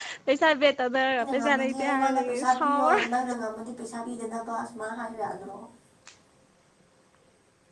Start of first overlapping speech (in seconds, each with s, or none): 1.2 s